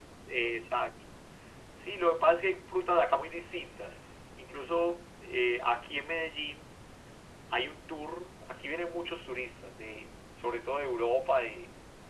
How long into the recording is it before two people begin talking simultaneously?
none

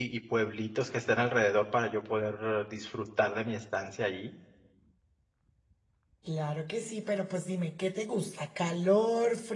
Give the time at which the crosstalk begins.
none

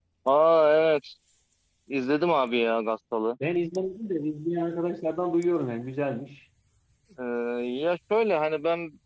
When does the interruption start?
none

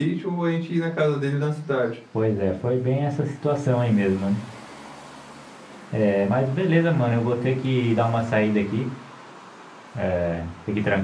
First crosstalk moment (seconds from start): none

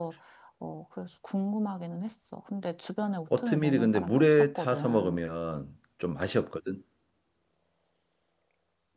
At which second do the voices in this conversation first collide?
3.3 s

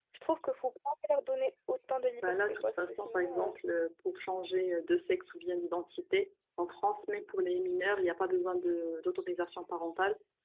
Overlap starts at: 2.2 s

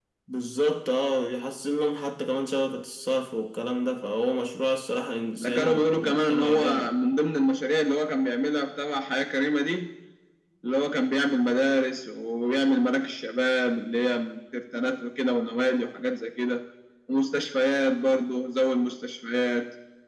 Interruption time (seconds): 5.3 s

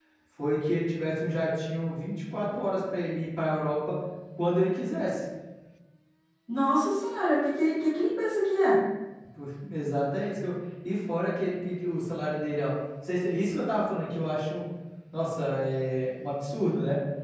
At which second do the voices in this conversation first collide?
none

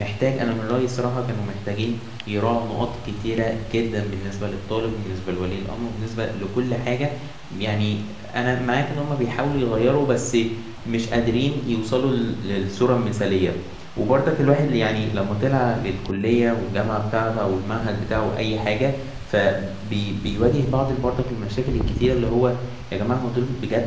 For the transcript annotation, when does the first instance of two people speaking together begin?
none

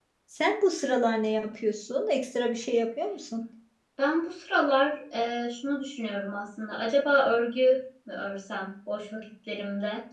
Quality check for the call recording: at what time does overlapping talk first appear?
none

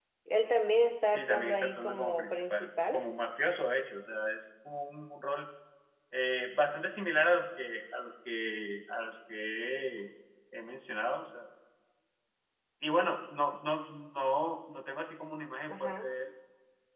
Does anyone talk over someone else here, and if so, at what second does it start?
1.1 s

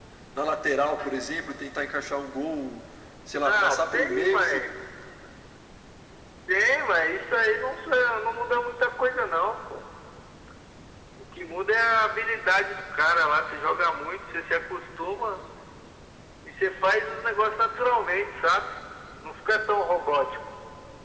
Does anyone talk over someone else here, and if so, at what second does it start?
3.5 s

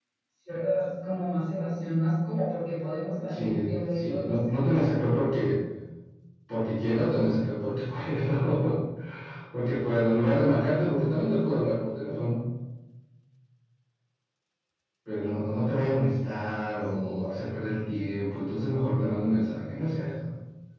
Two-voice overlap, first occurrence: 3.3 s

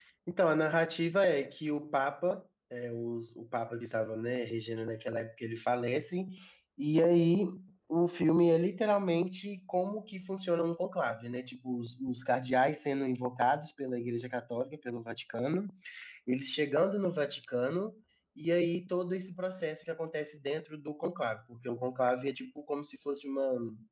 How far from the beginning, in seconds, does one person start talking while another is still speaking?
none

